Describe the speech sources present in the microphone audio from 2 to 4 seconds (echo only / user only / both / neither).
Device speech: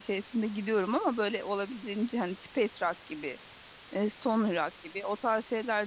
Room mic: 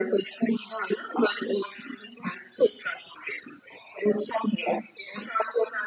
echo only